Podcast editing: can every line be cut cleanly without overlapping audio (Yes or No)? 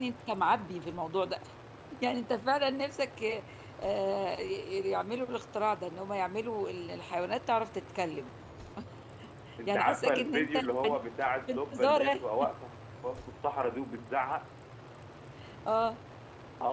No